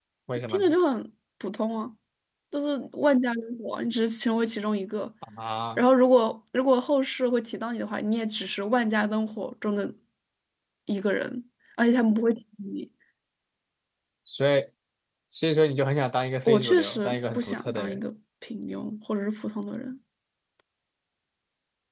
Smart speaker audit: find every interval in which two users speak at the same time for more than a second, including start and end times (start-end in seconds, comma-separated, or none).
16.4-18.0